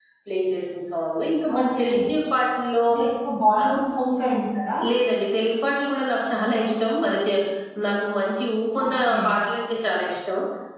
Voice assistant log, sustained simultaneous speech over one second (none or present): none